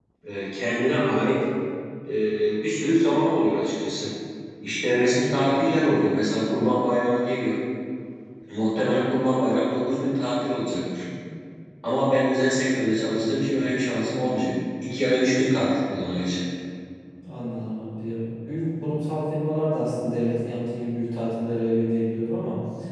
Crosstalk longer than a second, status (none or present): none